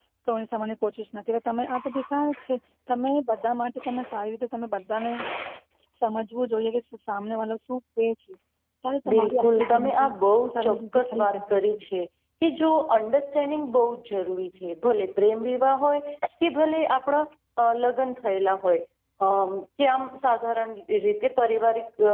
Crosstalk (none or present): present